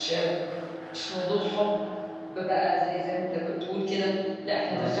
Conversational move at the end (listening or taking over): listening